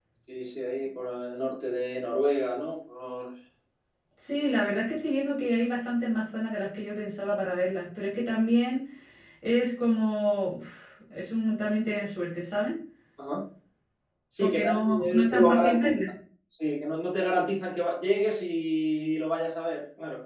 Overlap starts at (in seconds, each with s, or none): 14.4 s